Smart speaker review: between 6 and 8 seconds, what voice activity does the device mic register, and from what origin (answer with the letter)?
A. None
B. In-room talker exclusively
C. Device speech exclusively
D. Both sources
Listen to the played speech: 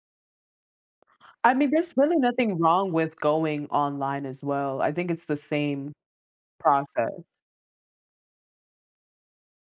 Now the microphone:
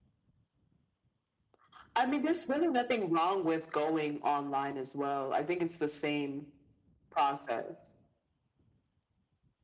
C